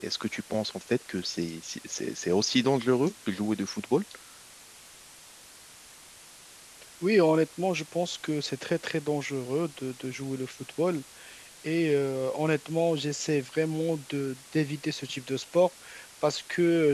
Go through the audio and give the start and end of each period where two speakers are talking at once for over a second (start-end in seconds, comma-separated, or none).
none